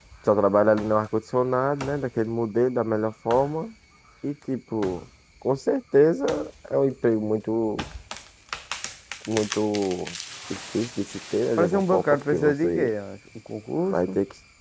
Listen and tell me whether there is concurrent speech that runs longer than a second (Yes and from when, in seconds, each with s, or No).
Yes, from 11.6 s